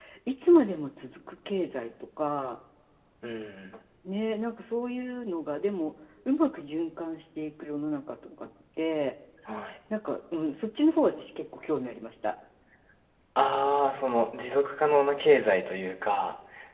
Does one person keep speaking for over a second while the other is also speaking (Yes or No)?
No